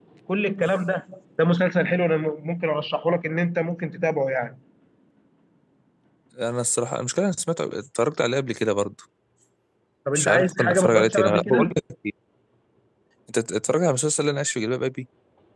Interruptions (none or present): present